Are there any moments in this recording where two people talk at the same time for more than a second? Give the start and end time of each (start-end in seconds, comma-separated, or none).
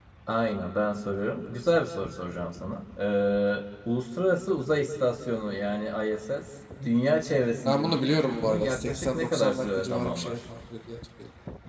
7.6-10.4